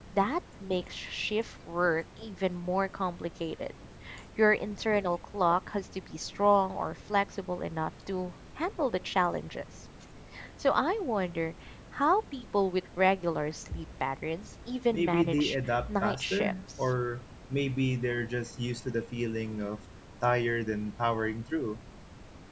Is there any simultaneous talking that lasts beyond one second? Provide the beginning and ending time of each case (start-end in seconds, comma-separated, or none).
14.9-16.9